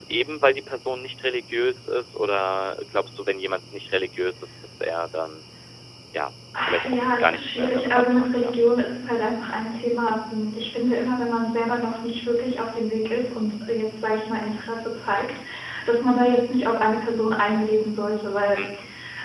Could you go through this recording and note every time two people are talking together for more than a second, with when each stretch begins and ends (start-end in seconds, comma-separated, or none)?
6.7-8.6